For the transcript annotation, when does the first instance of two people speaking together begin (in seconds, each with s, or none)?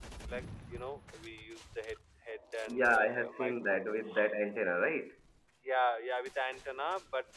2.7 s